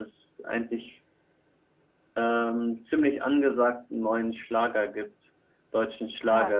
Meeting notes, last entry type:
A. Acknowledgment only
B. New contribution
A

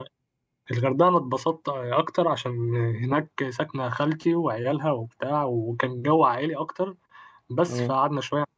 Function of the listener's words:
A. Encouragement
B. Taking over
A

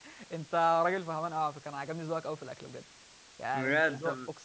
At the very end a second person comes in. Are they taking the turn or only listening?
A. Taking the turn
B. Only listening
A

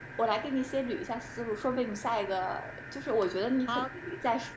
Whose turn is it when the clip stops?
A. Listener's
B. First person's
B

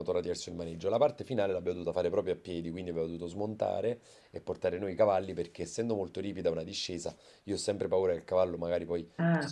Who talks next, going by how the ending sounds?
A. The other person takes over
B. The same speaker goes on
B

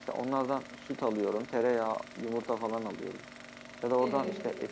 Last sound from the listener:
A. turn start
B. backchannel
B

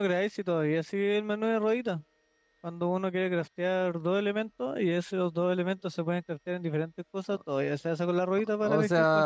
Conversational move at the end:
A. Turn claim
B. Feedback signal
A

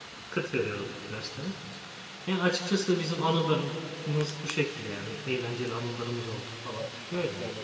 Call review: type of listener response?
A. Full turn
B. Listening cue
A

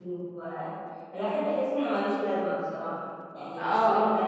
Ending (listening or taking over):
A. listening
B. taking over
B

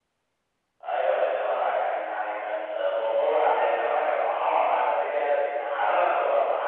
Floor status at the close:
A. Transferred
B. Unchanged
B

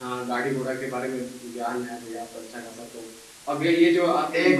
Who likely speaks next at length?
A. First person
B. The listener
A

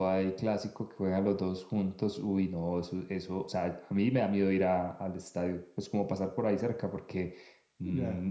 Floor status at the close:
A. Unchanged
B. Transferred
A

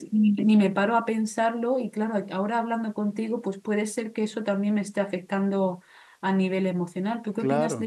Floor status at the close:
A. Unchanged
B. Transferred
B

